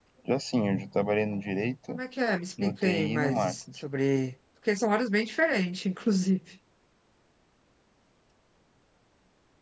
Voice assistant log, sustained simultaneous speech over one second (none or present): present